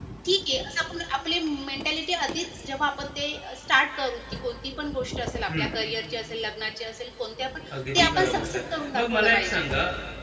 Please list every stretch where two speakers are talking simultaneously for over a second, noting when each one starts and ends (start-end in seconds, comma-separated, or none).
7.8-9.6